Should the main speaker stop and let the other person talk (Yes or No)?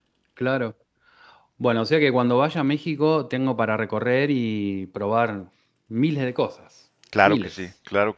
Yes